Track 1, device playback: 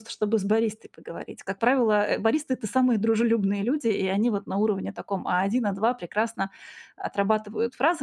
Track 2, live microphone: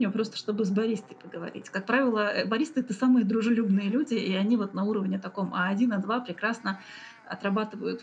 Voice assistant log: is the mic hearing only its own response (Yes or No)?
Yes